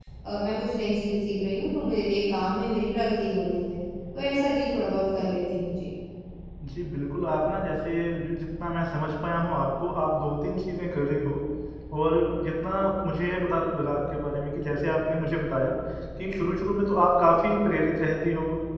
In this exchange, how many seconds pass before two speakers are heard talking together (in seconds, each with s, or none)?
none